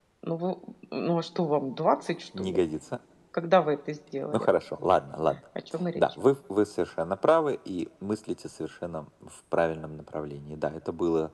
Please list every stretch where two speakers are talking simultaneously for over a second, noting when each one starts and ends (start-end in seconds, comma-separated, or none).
none